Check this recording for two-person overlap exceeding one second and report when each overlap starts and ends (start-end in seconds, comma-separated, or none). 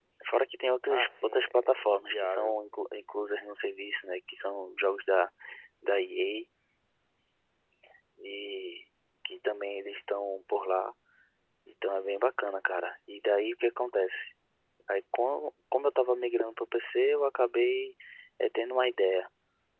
0.9-2.6